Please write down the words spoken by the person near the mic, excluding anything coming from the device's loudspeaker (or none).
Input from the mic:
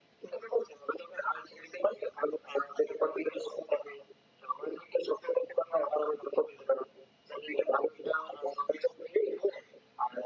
none